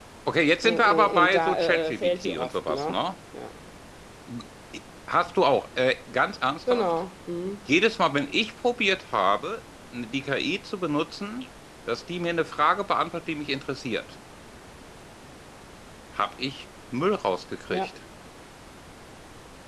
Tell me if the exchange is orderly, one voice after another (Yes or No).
No